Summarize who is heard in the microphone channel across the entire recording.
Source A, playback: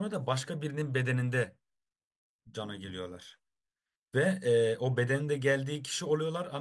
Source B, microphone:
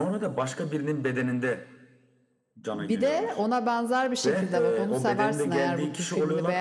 both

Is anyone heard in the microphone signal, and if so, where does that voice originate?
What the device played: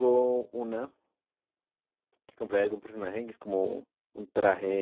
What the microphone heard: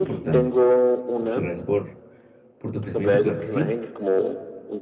both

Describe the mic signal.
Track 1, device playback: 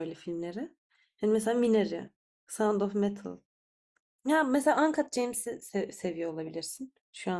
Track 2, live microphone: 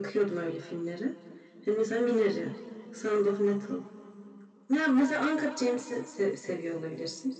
echo only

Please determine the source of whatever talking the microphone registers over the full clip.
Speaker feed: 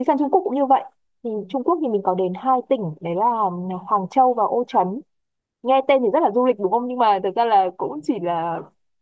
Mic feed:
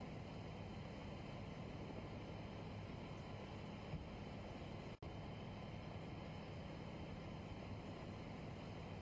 neither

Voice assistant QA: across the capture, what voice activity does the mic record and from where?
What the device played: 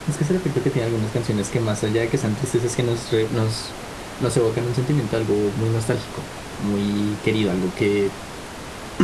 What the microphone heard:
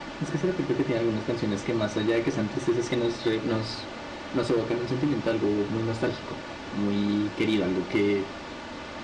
echo only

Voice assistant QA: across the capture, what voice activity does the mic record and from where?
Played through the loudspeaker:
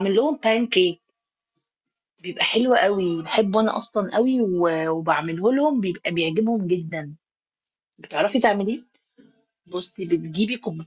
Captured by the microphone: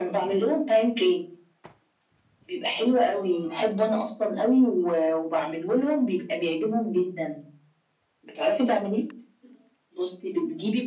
echo only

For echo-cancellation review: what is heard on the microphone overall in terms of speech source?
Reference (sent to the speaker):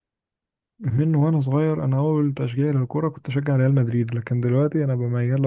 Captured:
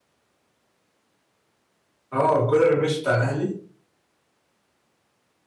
user only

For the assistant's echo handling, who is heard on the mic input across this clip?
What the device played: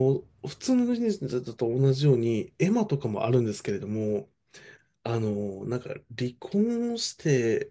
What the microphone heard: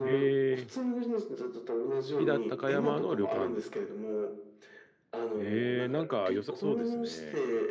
both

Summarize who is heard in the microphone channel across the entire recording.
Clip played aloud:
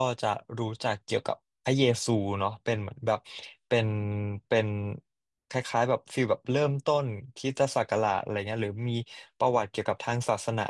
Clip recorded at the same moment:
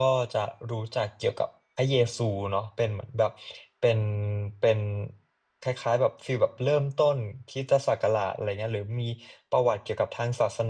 echo only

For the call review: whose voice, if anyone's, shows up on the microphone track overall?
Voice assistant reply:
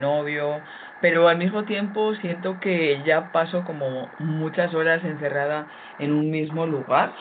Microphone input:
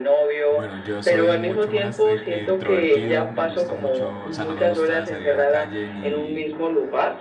both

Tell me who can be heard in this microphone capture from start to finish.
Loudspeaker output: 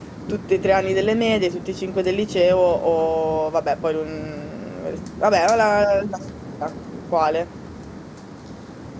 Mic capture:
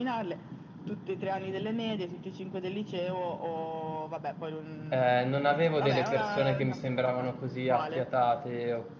both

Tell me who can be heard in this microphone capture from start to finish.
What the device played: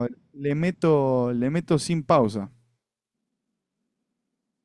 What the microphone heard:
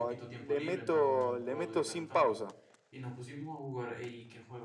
both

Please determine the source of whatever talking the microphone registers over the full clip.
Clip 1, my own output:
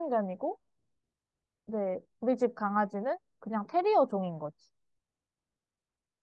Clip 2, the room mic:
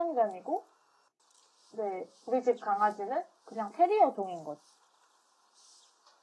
echo only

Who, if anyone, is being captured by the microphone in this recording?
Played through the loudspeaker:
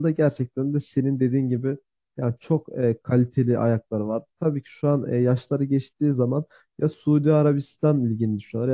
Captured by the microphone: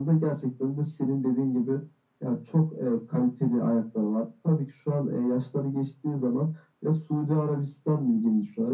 echo only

